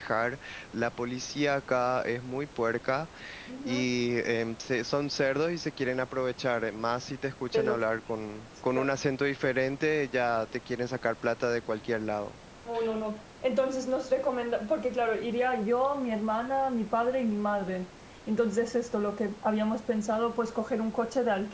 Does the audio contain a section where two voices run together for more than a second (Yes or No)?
No